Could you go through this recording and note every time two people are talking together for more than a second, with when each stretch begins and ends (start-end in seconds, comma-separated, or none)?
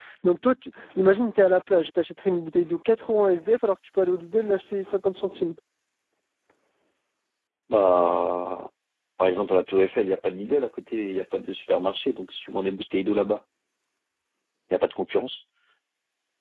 none